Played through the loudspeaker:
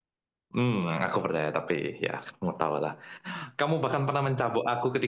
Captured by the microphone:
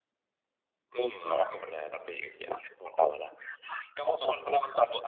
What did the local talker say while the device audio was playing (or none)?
none